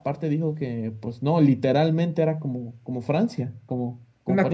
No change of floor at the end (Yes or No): No